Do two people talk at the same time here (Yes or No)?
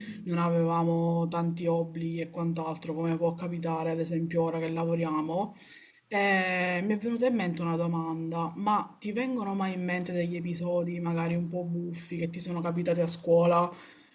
No